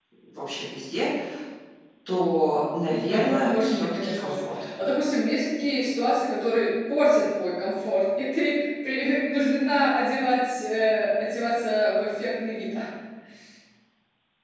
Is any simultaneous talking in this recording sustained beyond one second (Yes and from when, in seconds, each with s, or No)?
Yes, from 2.9 s